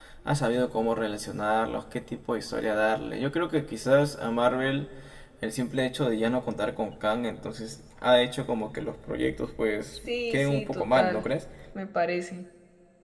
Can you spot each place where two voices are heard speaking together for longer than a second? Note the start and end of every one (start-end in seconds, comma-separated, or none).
9.9-11.3